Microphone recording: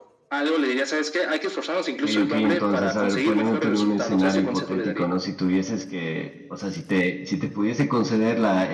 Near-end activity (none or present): present